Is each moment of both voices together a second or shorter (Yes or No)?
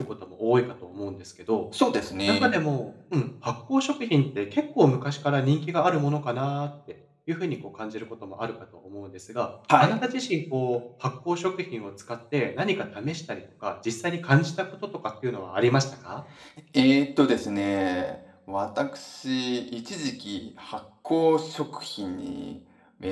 Yes